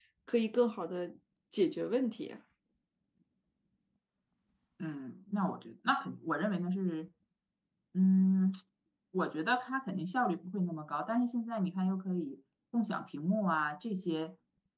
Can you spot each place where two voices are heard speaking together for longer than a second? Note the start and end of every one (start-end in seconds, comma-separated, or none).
none